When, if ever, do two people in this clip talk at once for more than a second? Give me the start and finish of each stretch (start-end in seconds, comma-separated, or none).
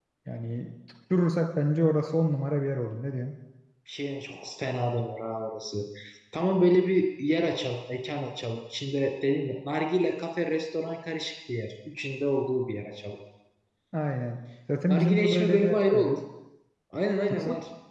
14.9-16.2